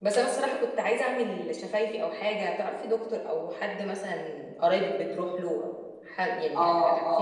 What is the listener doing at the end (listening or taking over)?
taking over